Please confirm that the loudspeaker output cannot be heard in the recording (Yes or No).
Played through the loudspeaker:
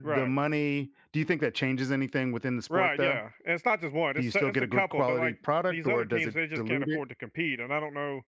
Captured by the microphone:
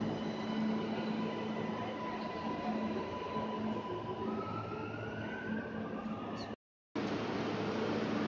Yes